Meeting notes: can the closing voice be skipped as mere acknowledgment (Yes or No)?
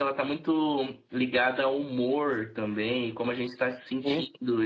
Yes